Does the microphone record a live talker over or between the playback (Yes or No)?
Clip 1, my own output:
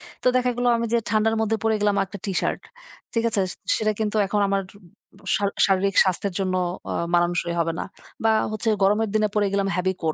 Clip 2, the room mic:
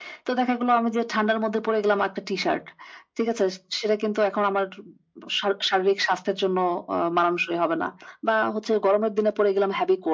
No